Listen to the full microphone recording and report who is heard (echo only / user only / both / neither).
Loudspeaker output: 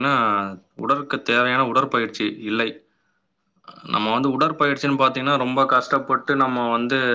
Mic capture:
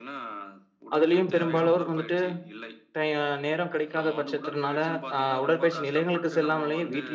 both